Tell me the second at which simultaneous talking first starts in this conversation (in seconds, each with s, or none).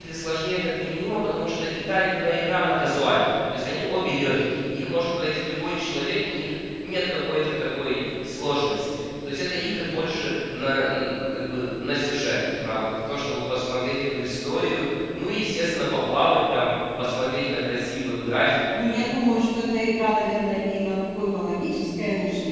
none